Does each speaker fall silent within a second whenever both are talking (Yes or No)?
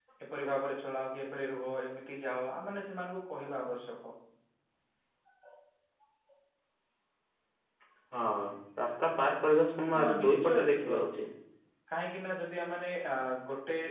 No